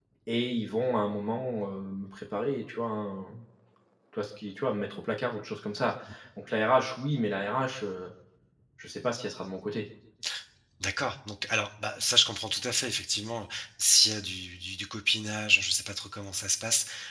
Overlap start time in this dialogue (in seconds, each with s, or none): none